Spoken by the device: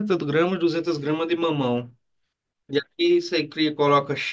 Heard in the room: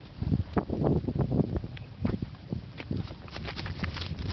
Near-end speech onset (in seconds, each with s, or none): none